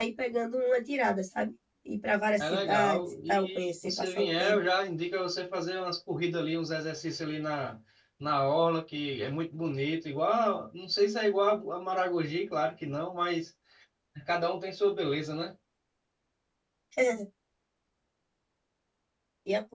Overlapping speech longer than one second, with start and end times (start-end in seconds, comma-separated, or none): 2.4-4.6